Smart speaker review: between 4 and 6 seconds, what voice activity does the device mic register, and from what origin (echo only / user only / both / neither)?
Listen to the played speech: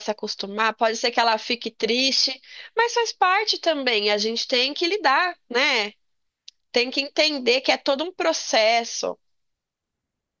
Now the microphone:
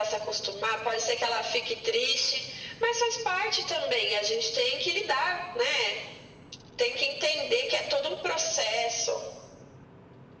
echo only